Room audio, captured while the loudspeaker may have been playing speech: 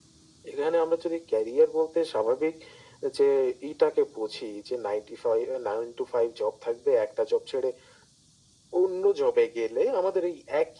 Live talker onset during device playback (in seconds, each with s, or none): none